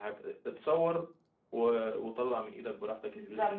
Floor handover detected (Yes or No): Yes